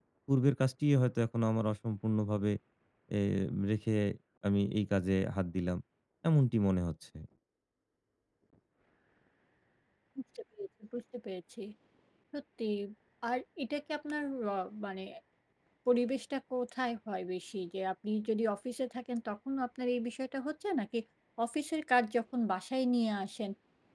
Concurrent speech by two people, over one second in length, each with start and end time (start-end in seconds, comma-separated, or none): none